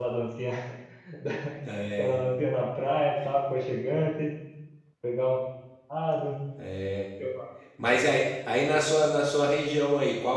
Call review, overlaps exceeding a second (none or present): none